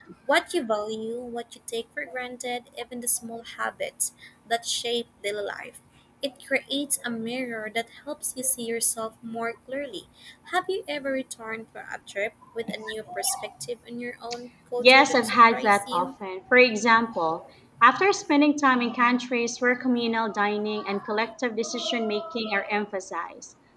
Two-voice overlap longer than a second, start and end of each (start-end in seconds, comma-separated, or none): 14.8-16.1